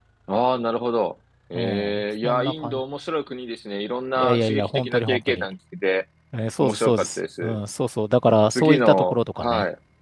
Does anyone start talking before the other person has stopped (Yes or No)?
Yes